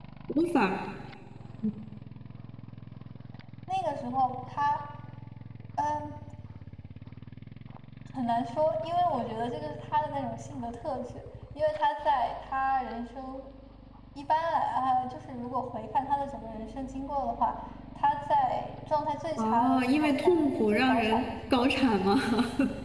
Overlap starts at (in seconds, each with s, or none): 19.4 s